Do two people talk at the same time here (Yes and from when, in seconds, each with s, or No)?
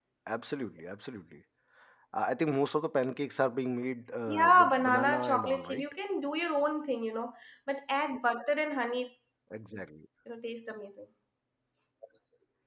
Yes, from 4.3 s